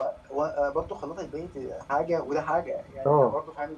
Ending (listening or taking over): listening